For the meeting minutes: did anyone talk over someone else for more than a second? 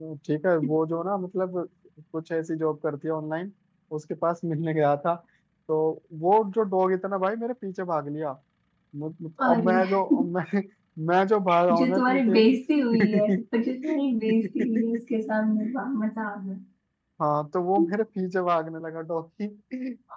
Yes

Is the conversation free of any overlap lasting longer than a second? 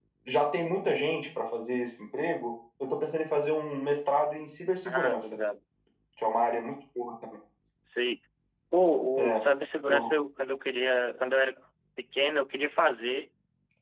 Yes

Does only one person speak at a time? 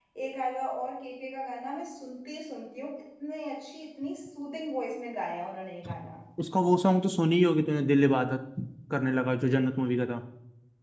Yes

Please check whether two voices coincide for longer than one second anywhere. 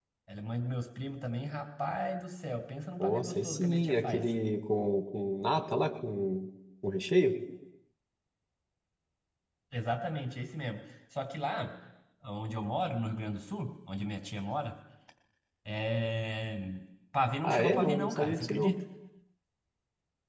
Yes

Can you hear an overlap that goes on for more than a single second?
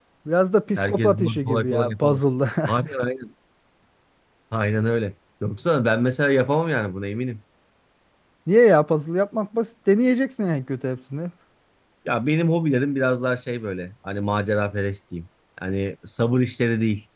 Yes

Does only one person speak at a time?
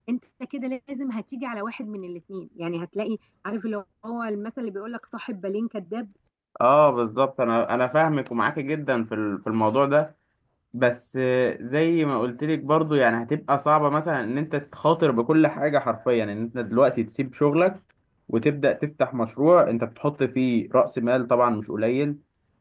Yes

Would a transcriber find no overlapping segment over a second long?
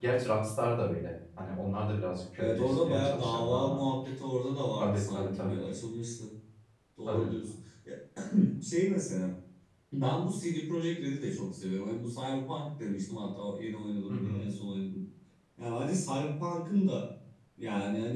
No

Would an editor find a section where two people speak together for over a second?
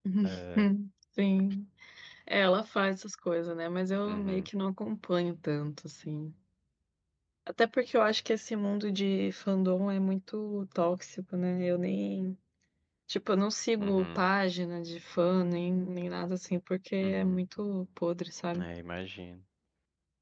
No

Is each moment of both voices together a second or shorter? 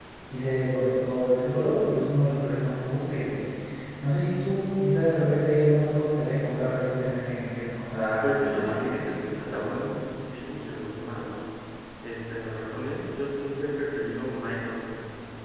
No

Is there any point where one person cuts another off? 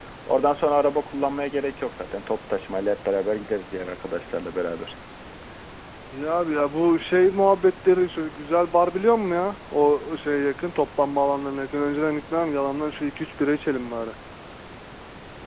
No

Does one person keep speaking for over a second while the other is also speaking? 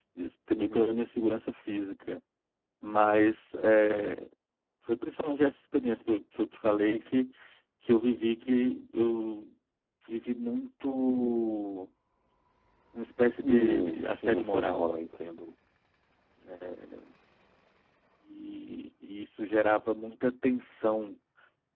Yes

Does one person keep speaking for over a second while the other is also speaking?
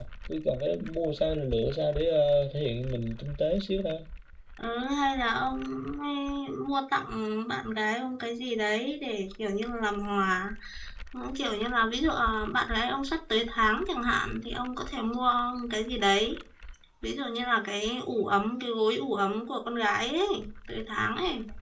No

